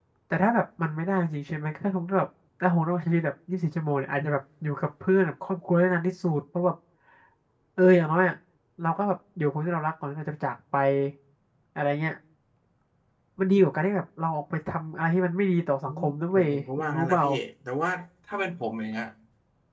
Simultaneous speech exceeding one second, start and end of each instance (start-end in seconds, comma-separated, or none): 15.9-17.2